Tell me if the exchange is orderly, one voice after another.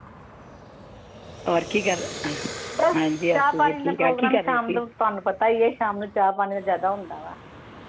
No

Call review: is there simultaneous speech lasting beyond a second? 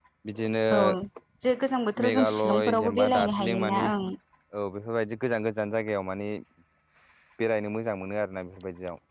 Yes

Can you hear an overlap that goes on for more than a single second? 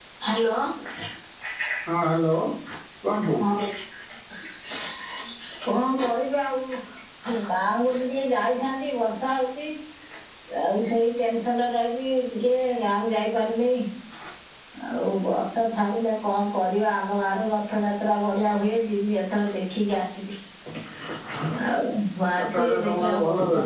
Yes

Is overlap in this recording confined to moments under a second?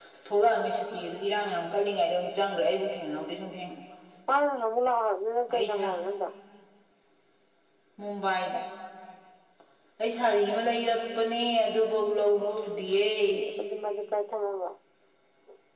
Yes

